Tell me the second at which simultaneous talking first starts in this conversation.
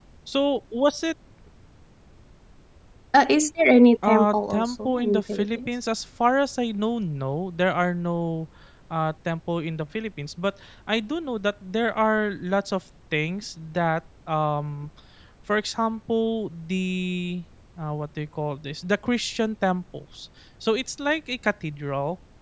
4.0 s

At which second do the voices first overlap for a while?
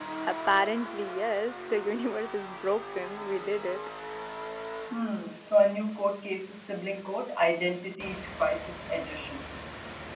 none

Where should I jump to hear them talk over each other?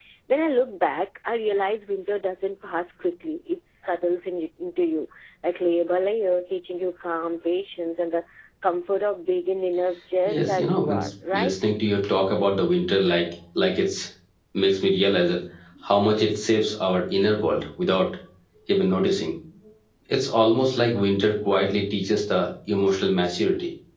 10.3 s

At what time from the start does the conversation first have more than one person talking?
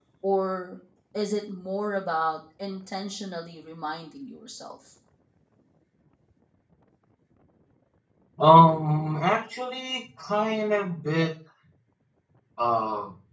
none

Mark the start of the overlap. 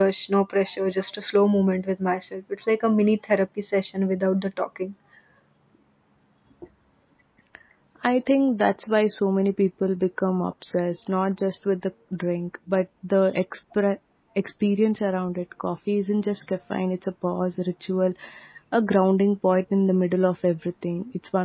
none

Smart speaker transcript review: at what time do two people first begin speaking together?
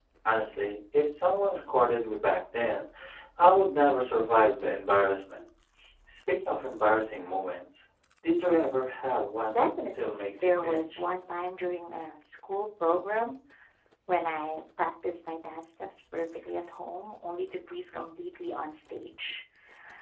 9.5 s

